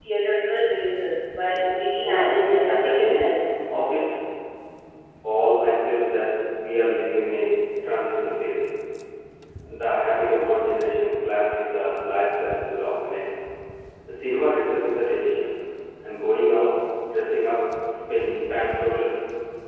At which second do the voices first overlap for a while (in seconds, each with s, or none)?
2.0 s